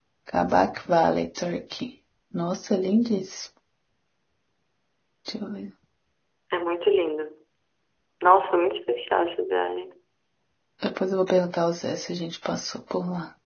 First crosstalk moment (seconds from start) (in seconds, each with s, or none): none